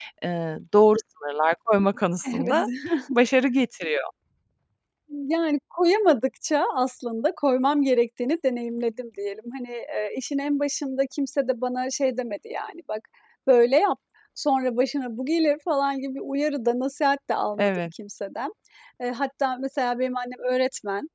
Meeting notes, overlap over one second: none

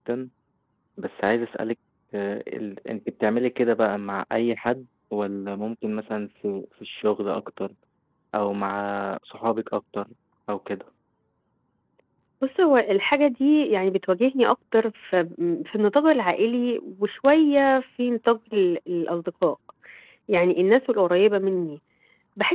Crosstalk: none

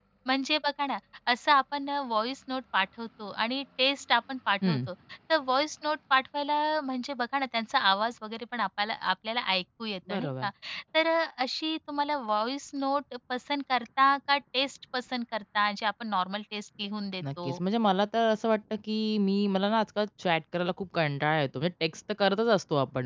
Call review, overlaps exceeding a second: none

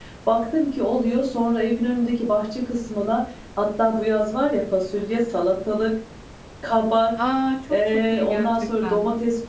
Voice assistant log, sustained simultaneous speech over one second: present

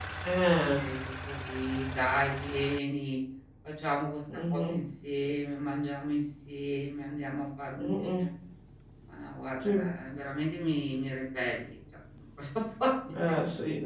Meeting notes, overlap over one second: none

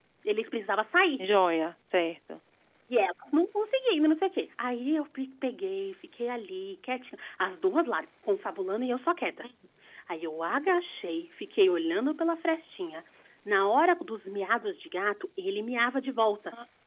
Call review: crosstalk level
none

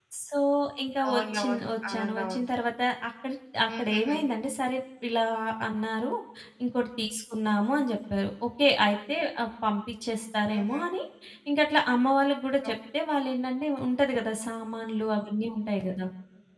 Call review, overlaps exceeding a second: present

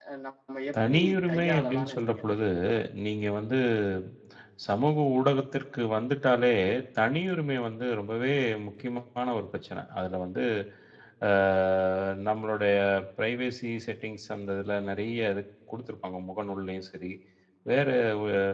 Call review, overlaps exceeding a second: present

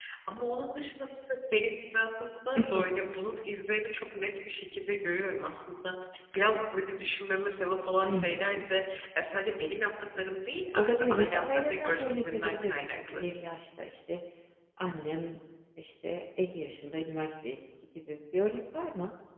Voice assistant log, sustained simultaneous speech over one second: present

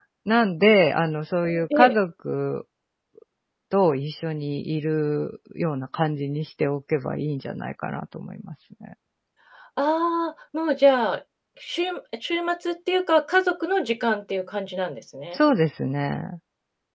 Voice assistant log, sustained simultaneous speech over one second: none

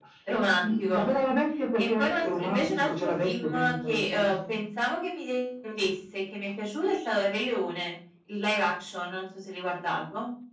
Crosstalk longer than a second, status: present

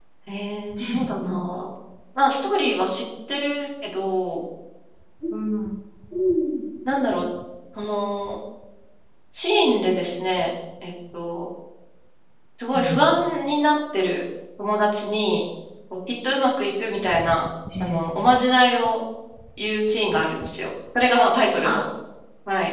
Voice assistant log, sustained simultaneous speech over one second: none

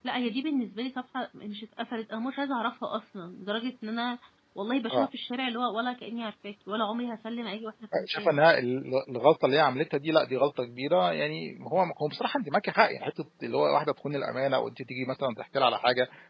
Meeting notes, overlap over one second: none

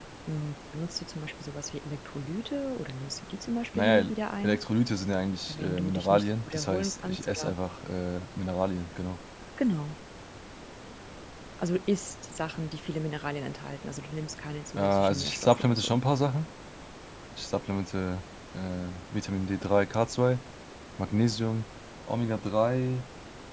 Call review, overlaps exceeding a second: present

